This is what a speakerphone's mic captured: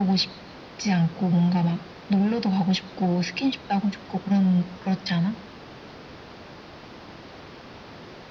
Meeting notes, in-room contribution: none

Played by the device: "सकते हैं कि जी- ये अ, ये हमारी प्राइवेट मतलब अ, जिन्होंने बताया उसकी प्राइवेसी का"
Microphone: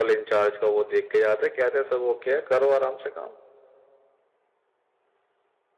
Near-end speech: present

